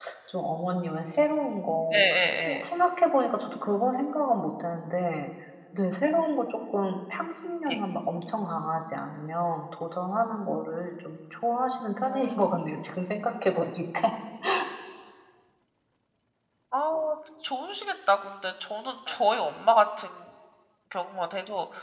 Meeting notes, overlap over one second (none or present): none